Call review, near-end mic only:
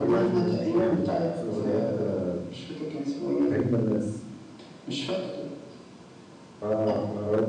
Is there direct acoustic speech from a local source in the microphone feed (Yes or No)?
Yes